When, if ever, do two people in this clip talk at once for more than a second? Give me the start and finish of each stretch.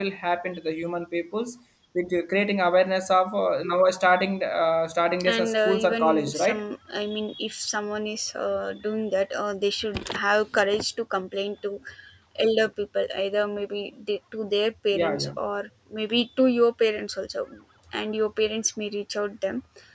5.3-6.6

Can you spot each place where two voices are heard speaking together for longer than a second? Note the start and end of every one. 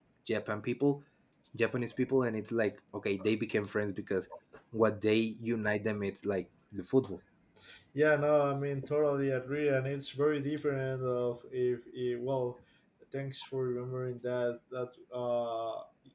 none

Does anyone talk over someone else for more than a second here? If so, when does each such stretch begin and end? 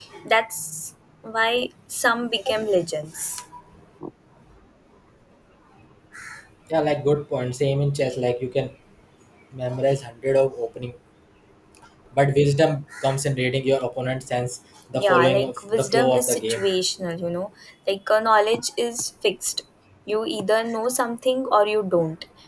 14.9-16.6

